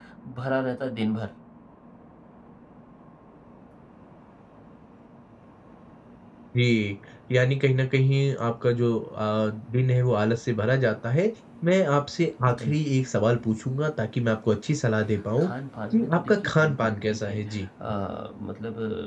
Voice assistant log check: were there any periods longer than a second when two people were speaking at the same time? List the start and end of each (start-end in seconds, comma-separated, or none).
15.9-17.7